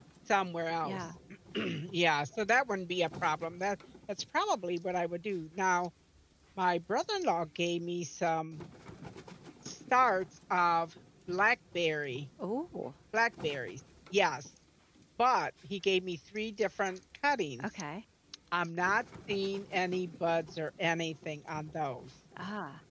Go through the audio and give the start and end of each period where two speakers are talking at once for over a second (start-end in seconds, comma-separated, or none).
none